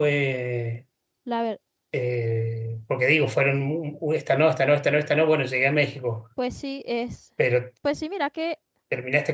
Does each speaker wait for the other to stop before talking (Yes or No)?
Yes